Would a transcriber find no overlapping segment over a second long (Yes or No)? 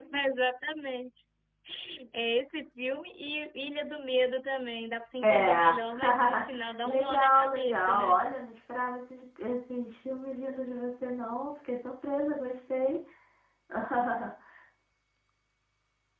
No